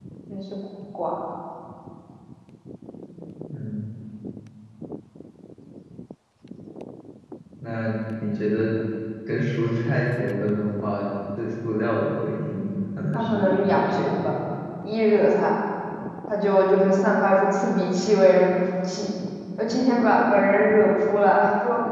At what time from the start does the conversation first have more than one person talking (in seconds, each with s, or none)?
13.1 s